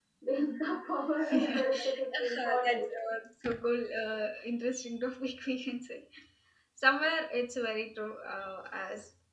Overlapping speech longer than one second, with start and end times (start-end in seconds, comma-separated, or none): 1.3-2.8